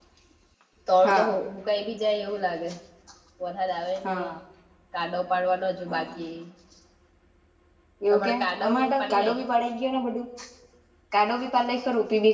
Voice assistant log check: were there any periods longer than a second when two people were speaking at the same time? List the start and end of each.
8.1-9.4

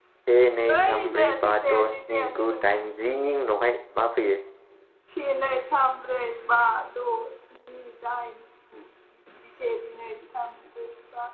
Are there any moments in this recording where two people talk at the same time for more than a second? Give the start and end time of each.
0.7-2.8

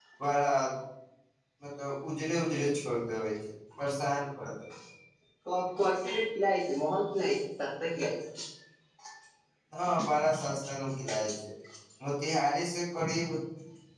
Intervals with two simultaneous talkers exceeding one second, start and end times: none

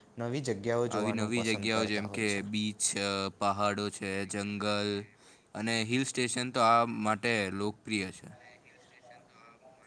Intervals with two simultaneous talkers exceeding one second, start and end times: 0.9-2.4

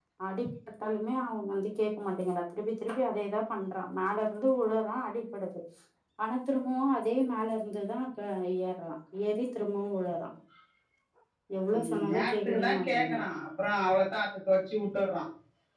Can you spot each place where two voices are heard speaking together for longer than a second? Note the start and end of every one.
11.8-13.2

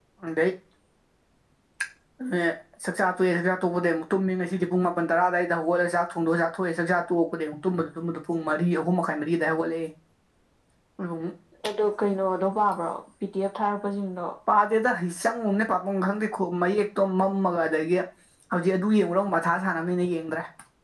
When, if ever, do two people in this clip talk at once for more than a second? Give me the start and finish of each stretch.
none

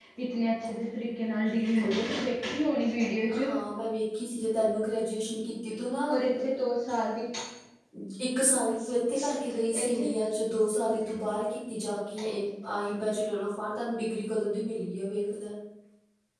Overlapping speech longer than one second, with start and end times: none

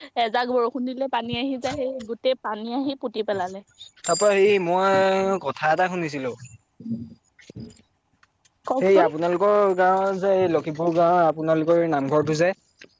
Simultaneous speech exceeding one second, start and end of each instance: none

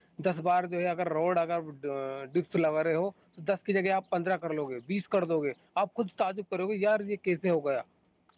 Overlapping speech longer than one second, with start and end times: none

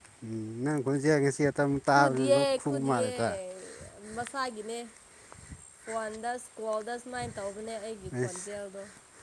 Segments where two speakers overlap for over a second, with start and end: 1.9-3.1

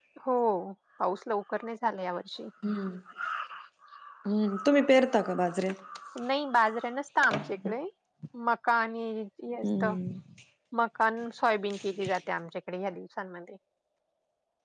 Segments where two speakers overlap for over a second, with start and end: none

